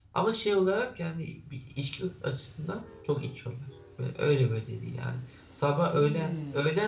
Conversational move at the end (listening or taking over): listening